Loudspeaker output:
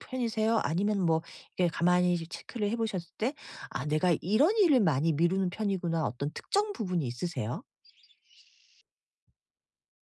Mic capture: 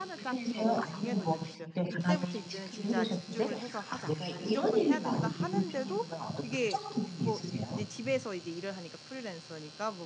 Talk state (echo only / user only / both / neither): both